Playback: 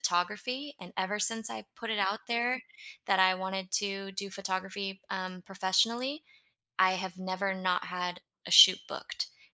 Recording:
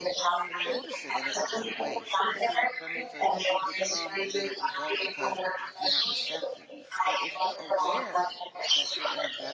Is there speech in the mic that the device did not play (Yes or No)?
Yes